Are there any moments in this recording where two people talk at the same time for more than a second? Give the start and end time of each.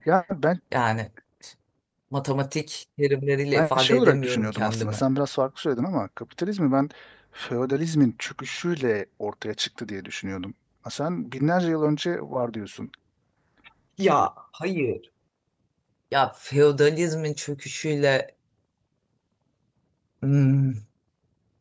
3.5-5.0

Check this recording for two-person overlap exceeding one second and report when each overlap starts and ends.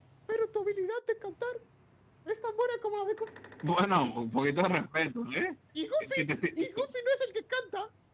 none

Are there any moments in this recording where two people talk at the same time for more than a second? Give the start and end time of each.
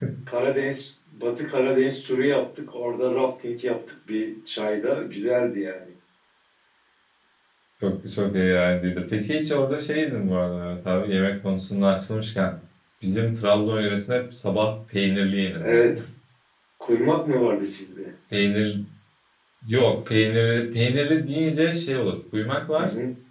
none

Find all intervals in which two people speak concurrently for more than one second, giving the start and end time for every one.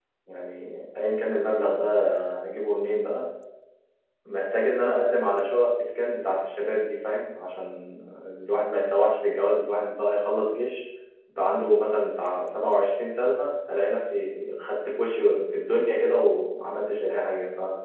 none

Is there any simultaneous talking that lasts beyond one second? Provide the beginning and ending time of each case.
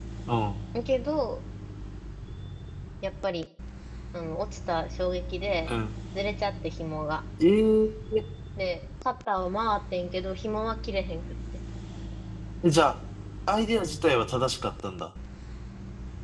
none

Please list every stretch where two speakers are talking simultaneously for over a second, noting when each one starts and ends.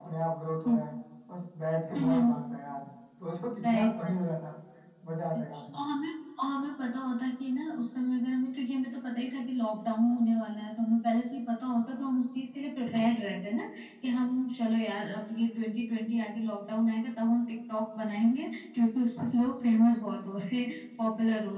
none

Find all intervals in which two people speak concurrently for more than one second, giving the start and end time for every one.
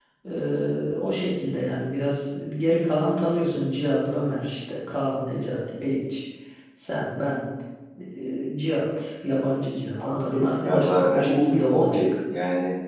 10.0-12.0

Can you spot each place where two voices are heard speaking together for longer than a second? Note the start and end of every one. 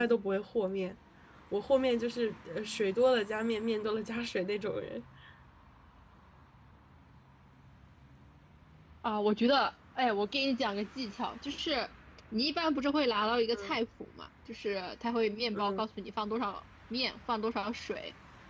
none

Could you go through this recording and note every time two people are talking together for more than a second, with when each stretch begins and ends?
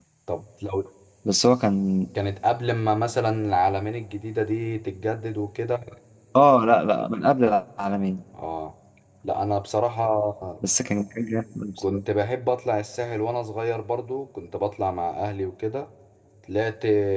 none

